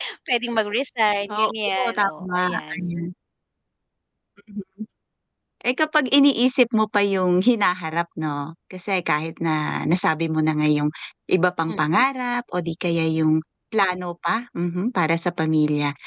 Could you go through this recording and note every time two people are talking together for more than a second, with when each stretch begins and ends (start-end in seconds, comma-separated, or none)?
1.3-2.8